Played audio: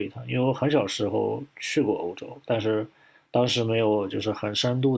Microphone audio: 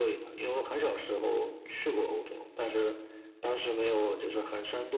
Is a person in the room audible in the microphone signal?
No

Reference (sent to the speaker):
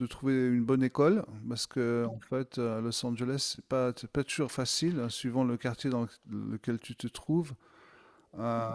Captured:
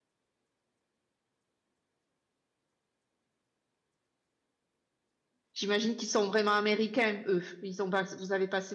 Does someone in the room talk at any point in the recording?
Yes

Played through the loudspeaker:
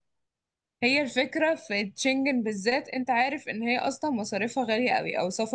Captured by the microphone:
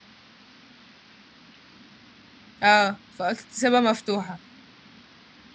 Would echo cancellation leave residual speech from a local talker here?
Yes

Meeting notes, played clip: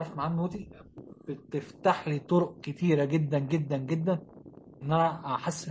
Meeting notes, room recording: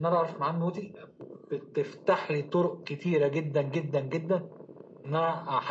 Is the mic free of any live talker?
Yes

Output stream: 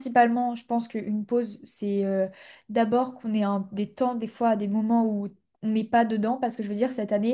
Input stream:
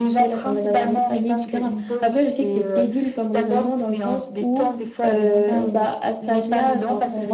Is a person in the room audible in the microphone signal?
Yes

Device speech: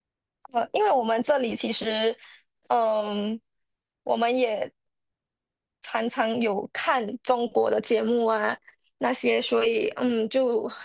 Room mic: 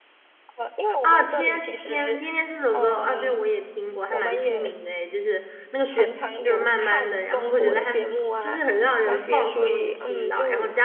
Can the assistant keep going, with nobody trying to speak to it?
No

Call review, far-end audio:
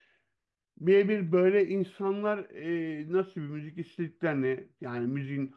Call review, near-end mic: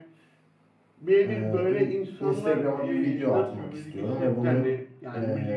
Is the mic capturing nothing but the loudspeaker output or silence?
No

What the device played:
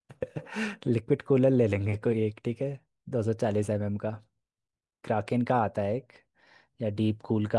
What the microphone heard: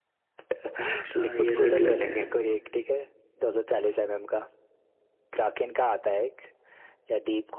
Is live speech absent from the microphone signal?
No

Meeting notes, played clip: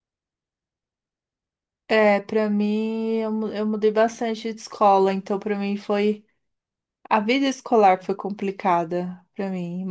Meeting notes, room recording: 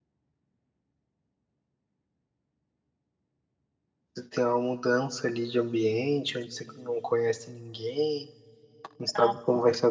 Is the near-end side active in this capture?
Yes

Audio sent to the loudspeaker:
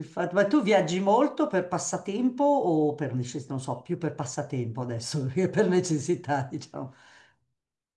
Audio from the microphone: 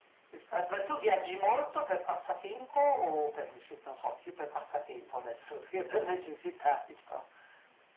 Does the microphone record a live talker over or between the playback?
No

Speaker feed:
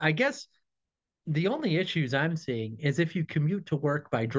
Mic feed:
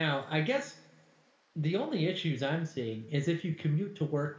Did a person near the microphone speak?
No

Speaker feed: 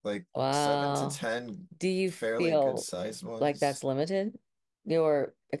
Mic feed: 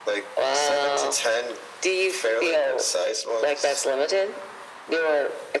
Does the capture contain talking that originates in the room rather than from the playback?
No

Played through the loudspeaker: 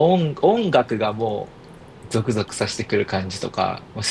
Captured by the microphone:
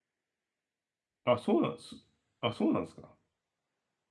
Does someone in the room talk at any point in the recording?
Yes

